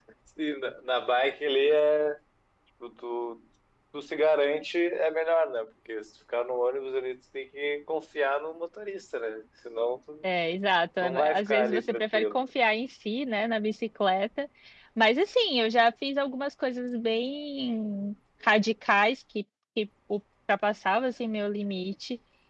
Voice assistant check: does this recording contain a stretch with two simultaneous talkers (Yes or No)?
Yes